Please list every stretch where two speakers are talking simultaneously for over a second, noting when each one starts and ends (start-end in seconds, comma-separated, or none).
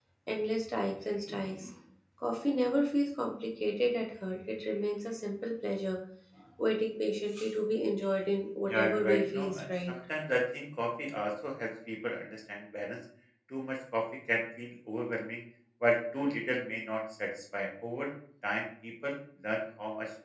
8.7-9.9